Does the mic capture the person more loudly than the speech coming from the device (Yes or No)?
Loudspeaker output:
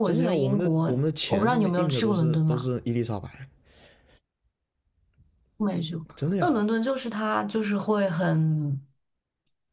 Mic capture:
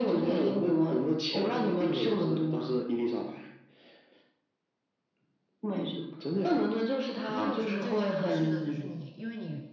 No